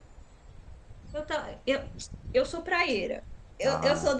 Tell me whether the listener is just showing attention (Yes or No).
Yes